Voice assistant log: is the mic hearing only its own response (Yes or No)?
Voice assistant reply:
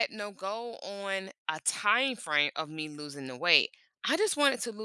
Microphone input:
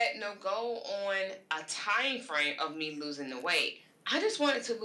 Yes